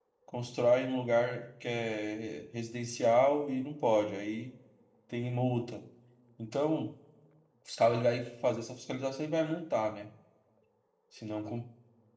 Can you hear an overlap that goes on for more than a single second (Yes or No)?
No